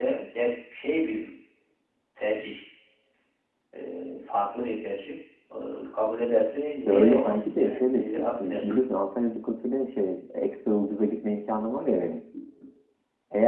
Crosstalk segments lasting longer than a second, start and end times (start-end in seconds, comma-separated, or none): 6.8-8.9